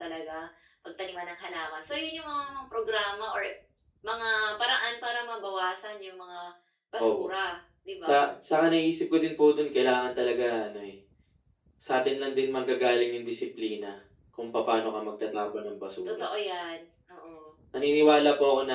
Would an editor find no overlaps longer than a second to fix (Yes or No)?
Yes